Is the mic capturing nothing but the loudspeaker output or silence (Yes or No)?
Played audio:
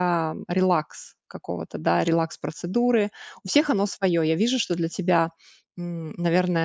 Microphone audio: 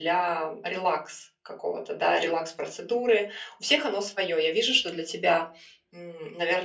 Yes